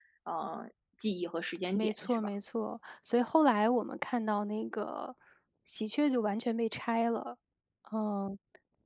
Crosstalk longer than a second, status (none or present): none